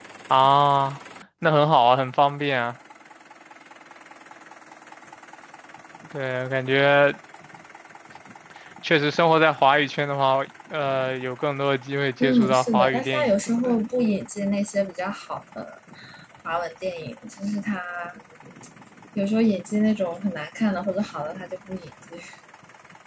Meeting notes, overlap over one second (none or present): present